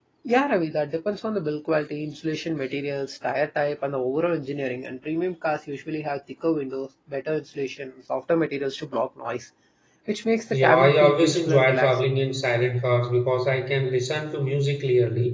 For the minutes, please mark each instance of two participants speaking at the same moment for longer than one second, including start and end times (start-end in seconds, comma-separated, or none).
10.5-12.1